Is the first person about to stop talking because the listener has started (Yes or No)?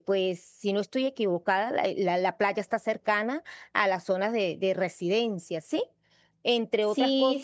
Yes